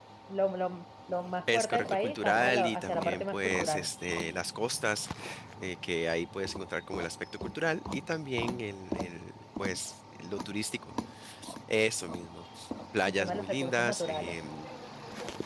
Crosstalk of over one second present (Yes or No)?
Yes